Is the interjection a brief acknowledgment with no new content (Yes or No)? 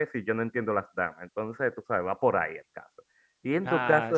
Yes